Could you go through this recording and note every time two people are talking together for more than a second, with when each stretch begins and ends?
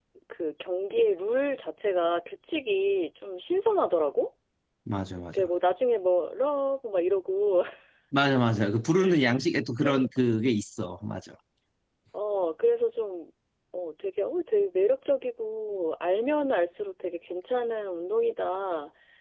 none

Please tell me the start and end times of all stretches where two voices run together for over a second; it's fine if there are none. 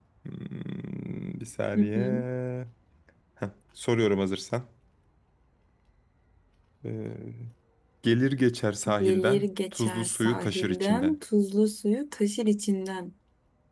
9.0-11.2

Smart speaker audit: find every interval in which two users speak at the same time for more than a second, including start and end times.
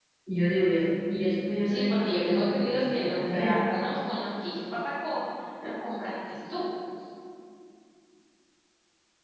1.6-3.6

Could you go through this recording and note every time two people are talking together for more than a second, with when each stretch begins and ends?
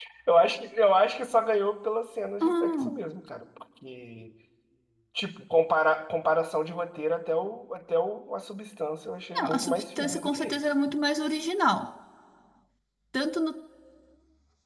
9.3-10.6

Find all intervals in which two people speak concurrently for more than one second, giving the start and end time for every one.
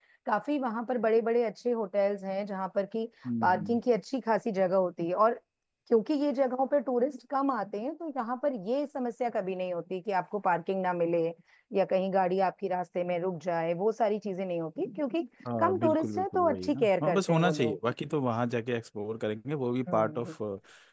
15.6-17.8

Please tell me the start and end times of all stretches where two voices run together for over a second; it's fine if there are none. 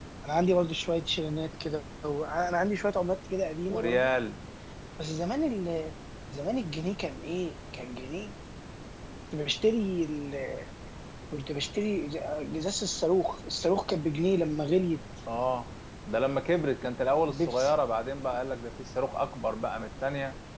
none

